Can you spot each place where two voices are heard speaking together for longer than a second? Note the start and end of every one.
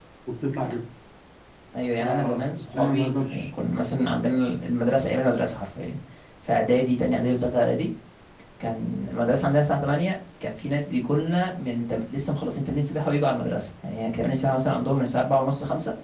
2.0-3.5

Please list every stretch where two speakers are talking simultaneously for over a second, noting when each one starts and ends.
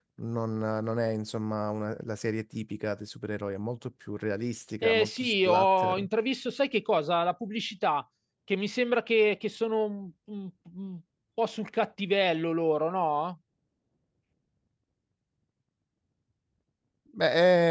4.8-6.1

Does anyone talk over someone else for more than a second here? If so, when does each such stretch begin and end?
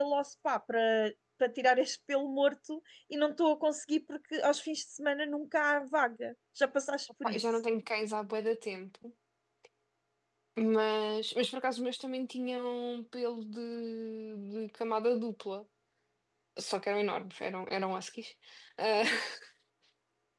none

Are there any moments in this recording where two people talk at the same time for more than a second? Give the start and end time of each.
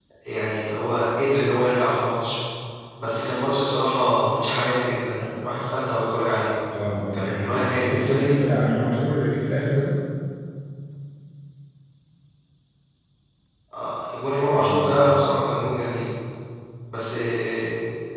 7.1-8.4

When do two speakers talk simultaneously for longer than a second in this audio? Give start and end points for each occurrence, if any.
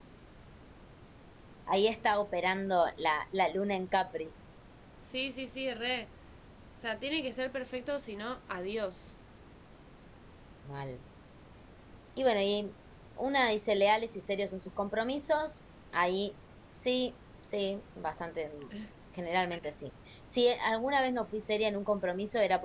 none

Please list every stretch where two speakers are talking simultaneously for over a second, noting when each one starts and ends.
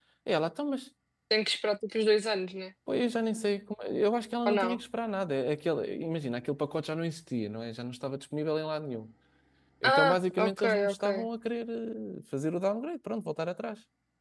9.8-11.1

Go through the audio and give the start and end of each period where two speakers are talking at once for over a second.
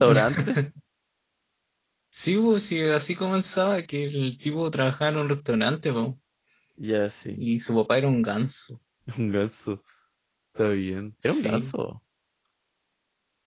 none

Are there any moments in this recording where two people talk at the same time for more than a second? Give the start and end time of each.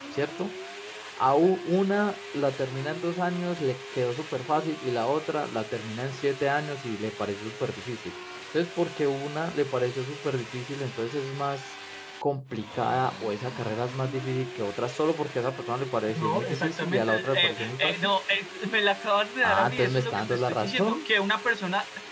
16.1-17.9, 19.4-21.0

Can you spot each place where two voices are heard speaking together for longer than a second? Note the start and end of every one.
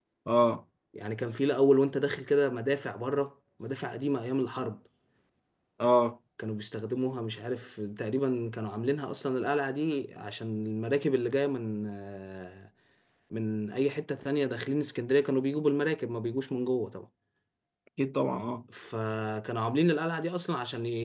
none

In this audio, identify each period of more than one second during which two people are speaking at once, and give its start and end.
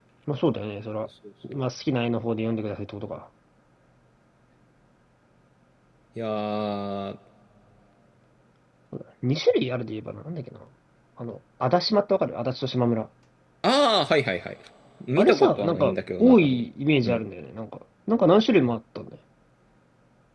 15.2-16.6

